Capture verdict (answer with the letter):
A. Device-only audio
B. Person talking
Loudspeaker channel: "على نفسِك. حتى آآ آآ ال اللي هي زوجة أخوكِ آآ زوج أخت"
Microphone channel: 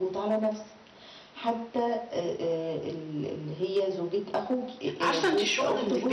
B